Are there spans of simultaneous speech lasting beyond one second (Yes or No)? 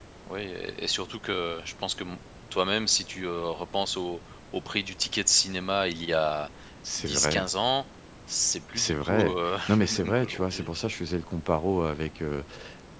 Yes